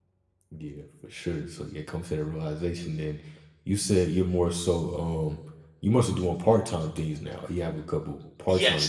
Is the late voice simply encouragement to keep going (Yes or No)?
No